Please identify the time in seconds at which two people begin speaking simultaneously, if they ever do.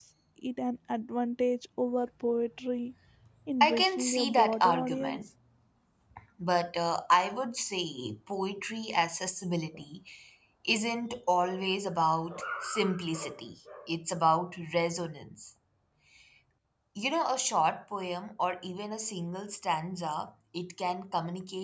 3.6 s

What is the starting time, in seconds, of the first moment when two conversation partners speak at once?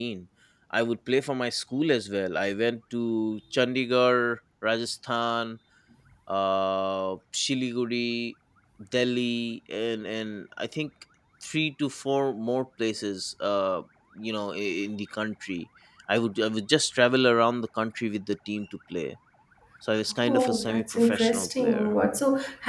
20.3 s

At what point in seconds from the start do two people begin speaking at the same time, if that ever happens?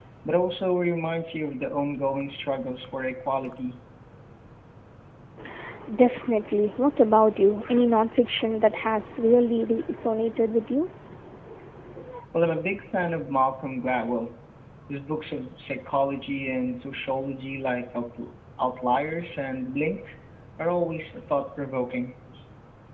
none

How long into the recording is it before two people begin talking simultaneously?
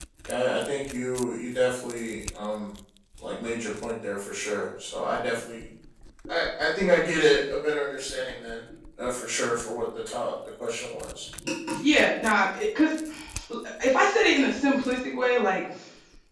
none

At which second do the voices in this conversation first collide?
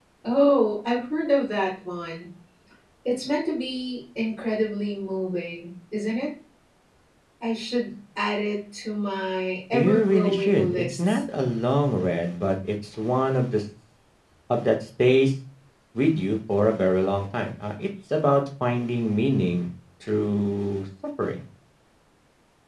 9.7 s

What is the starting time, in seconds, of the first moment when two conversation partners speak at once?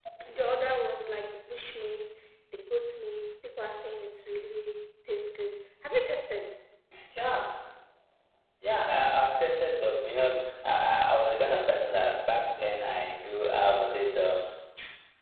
none

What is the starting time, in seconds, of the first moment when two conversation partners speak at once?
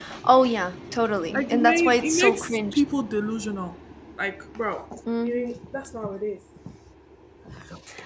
1.3 s

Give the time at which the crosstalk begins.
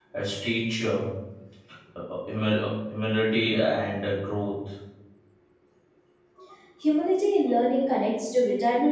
none

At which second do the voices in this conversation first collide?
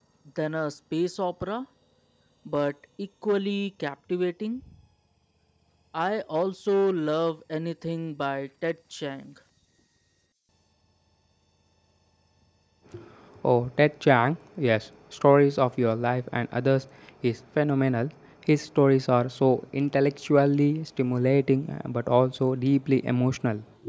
none

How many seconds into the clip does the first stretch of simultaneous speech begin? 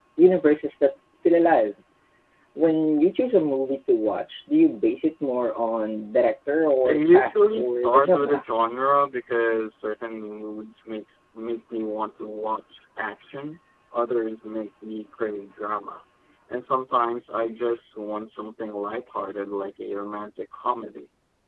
6.8 s

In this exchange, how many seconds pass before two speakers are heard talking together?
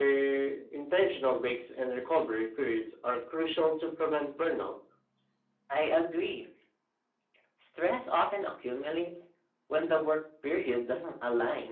none

